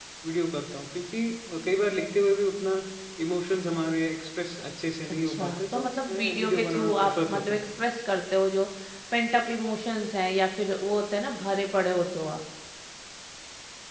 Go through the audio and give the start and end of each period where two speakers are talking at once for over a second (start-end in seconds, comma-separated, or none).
5.2-7.6